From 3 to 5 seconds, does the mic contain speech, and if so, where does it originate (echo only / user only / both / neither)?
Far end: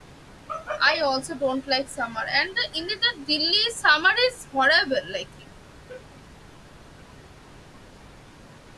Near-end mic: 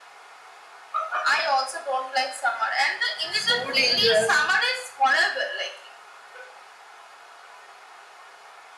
both